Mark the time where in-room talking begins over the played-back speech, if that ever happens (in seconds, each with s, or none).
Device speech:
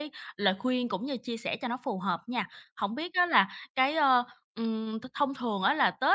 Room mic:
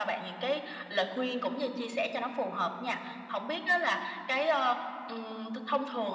none